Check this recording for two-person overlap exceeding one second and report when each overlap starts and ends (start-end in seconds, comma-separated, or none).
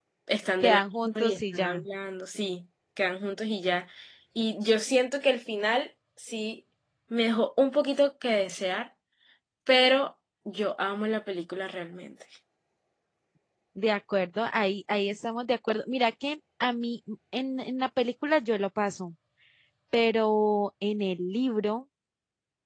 0.6-1.8